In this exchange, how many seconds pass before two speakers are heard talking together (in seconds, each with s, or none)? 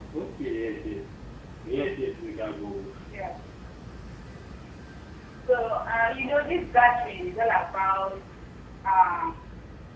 none